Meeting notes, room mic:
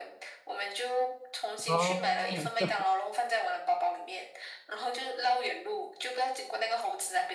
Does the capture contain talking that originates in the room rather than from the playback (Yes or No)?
Yes